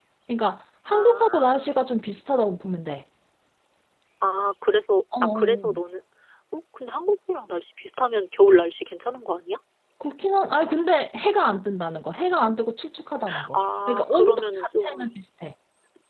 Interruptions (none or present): present